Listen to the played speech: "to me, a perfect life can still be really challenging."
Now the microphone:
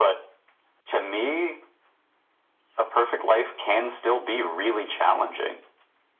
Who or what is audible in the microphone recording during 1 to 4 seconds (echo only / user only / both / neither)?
echo only